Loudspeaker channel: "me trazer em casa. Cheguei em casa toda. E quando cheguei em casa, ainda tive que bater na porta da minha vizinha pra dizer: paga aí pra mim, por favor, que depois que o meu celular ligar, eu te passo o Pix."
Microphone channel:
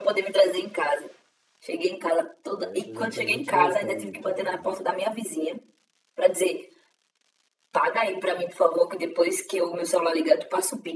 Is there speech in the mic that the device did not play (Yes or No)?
Yes